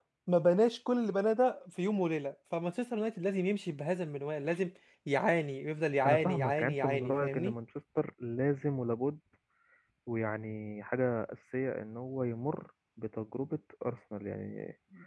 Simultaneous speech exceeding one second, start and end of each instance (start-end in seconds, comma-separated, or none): 6.0-7.5